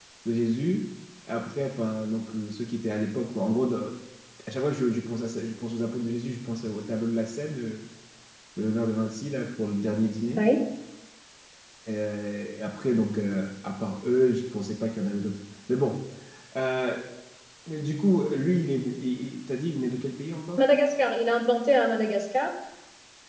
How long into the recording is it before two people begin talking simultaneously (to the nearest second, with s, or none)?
none